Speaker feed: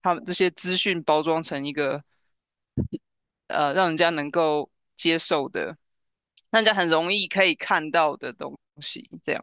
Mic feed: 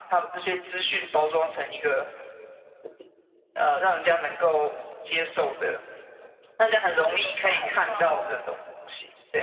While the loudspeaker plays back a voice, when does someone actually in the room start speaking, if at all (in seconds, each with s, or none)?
6.9 s